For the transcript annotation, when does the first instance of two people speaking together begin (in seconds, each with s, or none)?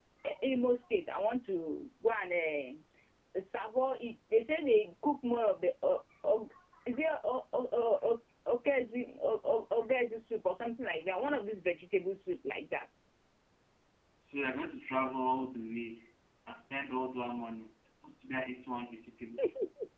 none